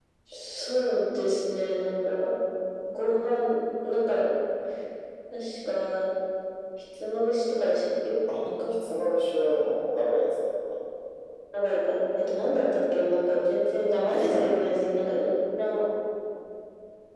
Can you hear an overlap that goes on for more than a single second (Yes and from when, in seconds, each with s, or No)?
No